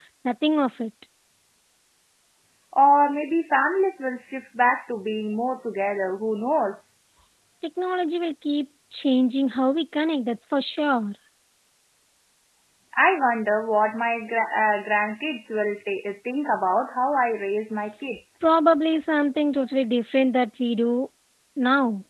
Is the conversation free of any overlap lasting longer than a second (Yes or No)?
Yes